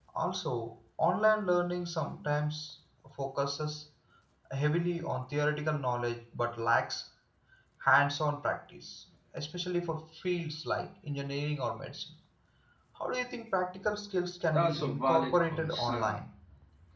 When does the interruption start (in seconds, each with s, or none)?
14.5 s